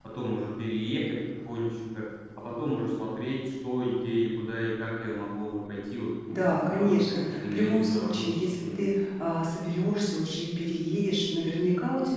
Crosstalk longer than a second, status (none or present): present